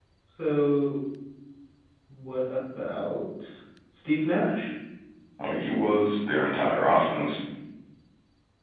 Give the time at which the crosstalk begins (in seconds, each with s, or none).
none